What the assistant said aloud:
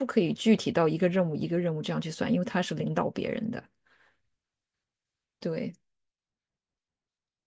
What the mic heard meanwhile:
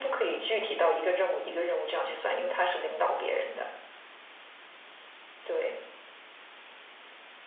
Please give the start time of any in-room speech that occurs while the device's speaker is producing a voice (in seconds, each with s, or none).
none